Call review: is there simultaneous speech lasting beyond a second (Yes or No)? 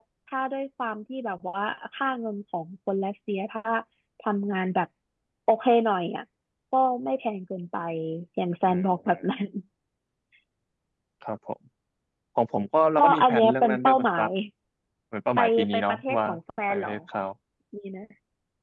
Yes